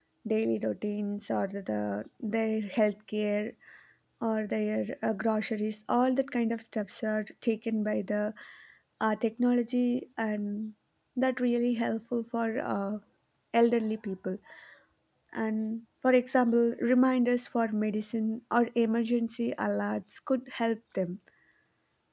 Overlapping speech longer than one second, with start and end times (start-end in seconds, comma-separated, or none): none